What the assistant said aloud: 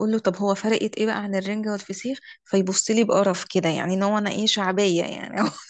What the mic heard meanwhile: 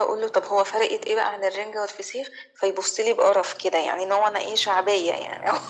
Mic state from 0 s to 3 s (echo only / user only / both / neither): echo only